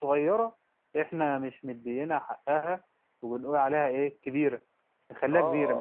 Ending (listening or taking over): taking over